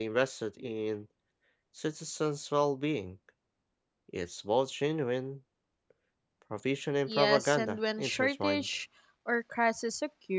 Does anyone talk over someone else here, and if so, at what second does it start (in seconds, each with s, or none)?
7.1 s